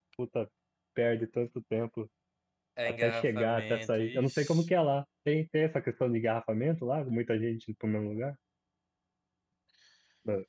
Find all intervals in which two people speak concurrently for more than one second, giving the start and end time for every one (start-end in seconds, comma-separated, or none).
2.8-4.7